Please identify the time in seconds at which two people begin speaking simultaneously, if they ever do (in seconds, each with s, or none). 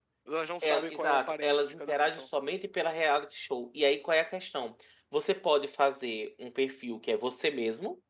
0.6 s